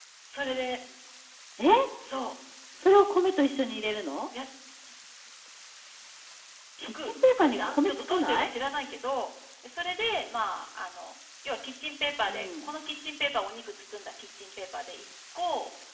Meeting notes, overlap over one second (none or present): present